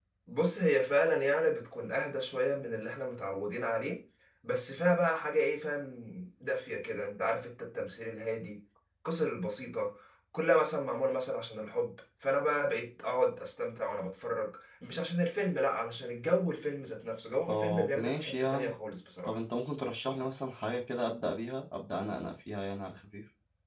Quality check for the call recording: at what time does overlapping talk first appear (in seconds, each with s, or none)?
17.5 s